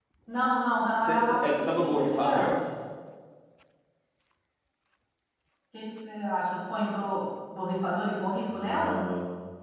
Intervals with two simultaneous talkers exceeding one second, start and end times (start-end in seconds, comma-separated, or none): 1.1-2.5